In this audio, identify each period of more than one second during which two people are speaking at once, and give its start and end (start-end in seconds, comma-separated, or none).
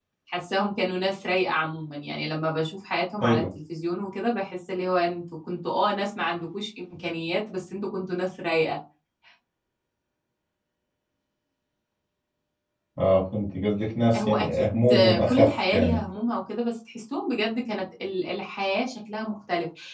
14.2-16.0